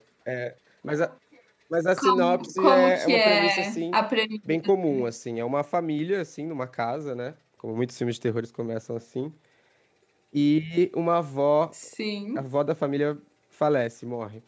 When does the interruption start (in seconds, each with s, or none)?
2.0 s